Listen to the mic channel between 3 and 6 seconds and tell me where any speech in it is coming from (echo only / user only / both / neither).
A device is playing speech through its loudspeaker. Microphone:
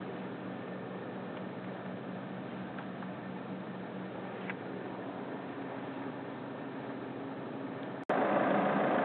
neither